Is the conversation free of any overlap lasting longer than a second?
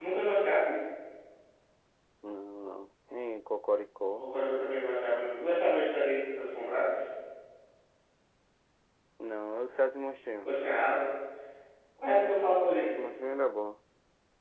Yes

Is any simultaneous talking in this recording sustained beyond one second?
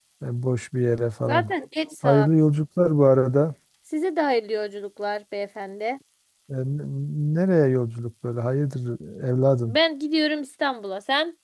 No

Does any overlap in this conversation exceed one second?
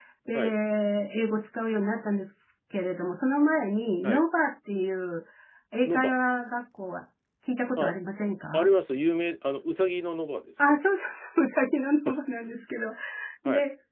No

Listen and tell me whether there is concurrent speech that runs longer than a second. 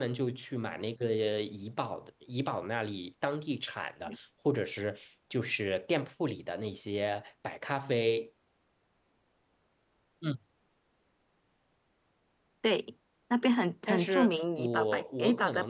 Yes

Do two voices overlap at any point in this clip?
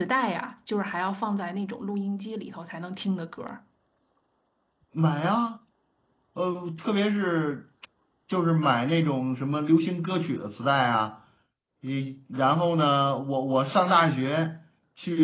No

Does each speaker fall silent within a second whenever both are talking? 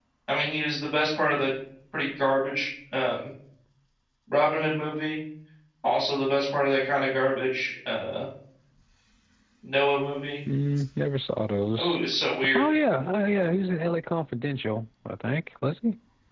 Yes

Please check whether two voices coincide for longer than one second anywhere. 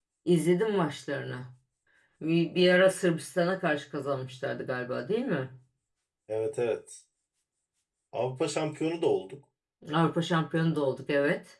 No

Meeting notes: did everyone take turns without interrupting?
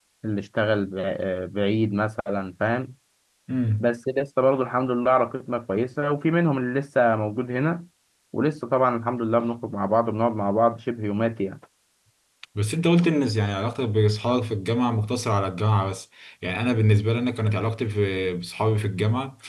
Yes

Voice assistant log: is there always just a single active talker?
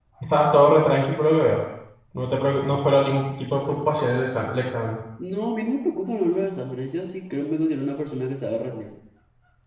Yes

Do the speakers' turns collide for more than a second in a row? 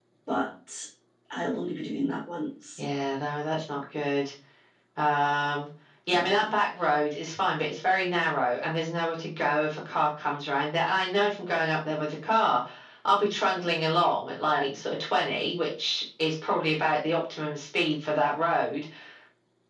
No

